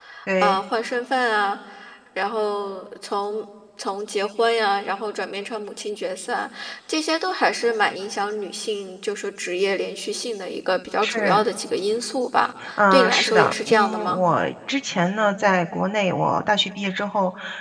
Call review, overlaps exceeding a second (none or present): present